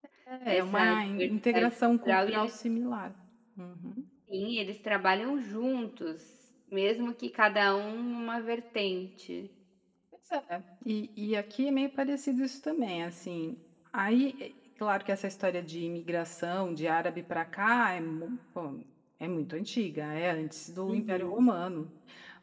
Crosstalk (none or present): present